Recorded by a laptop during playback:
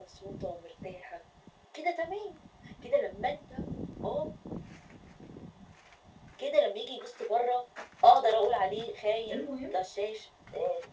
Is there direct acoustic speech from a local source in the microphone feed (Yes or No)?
Yes